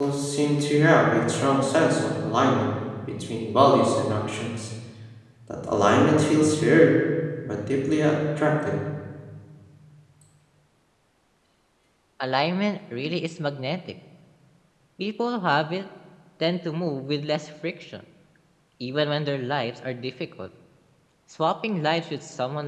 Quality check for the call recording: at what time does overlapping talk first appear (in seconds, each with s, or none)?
none